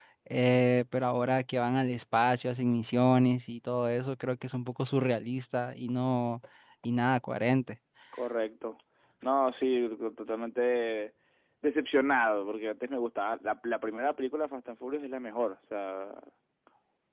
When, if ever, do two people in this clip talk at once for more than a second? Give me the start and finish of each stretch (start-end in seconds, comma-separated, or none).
none